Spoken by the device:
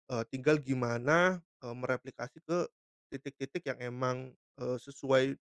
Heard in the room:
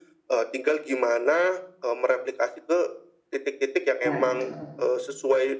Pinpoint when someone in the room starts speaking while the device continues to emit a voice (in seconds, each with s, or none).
4.0 s